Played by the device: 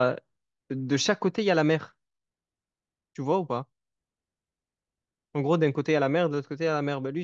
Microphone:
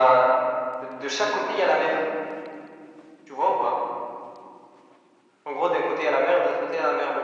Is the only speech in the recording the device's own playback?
Yes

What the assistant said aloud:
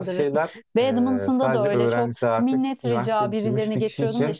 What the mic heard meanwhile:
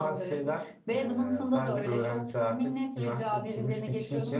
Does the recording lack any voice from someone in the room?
Yes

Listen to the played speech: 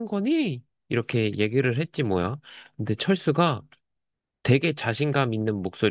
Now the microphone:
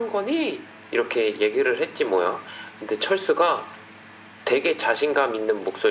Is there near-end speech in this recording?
No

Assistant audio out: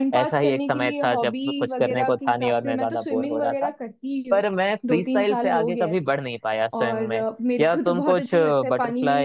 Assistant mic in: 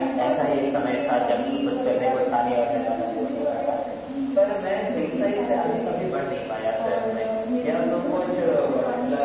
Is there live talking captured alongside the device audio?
No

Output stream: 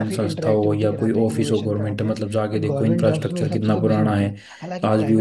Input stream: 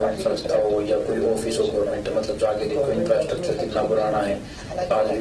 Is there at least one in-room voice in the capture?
No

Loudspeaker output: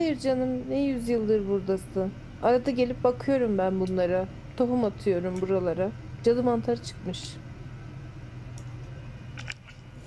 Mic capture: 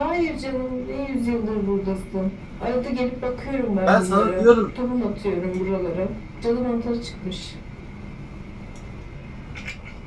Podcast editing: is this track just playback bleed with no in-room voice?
No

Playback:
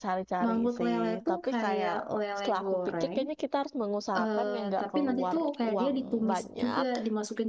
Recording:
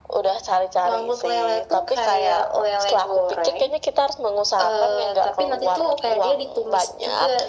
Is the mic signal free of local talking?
Yes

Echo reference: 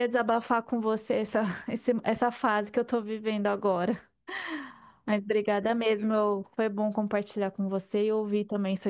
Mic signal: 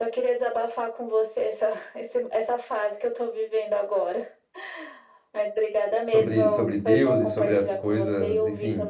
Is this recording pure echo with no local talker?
No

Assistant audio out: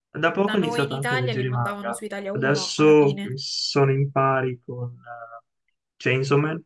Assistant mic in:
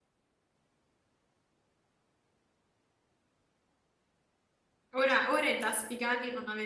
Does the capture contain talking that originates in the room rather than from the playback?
Yes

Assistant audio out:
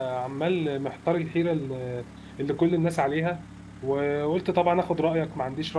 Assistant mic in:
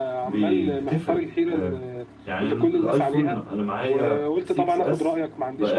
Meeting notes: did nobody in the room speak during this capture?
No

